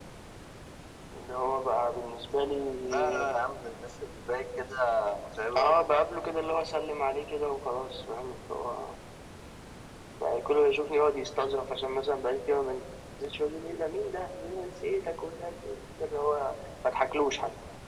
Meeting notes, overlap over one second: none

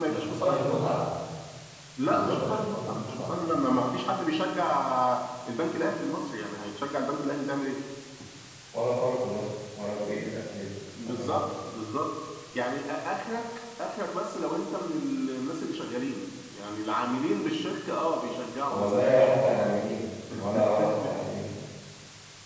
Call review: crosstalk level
present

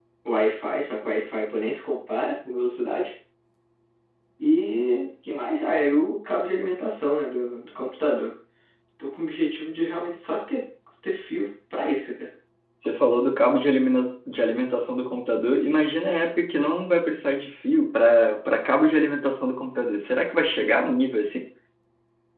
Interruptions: none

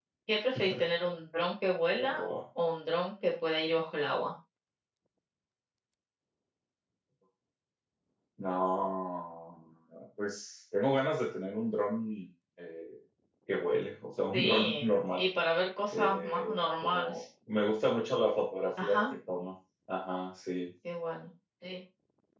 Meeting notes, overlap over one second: present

